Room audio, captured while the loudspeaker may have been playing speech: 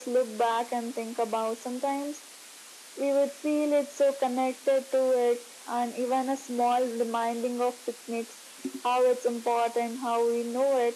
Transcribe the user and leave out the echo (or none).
none